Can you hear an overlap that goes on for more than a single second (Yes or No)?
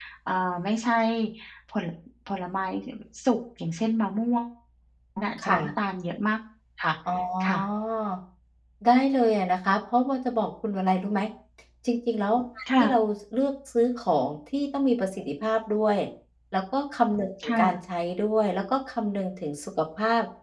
No